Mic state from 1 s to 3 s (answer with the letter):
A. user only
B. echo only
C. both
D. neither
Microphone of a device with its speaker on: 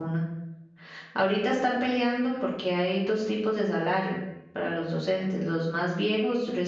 A